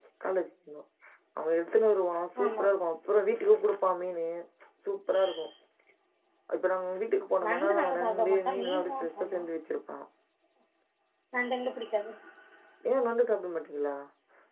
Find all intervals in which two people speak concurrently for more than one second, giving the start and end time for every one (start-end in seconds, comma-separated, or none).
7.4-9.4